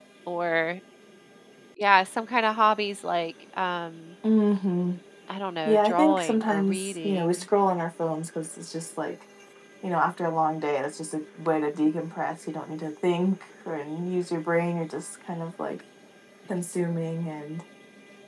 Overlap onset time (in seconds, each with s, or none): 5.7 s